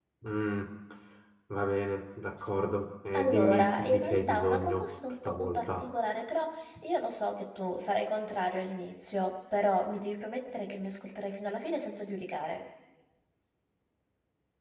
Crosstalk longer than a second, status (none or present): present